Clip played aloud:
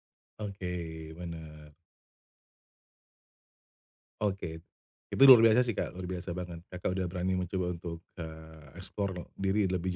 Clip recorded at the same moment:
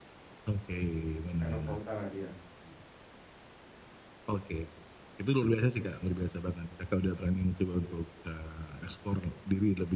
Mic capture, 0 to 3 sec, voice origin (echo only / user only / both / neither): both